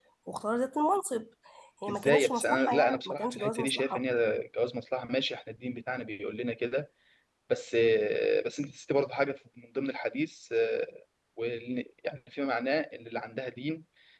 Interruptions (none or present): present